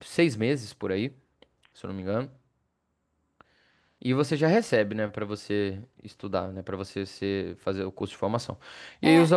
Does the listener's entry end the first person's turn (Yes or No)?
Yes